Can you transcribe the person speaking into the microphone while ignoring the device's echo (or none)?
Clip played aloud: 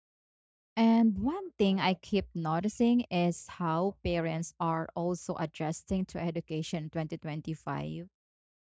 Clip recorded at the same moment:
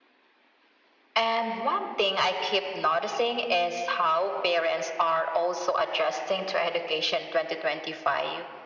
none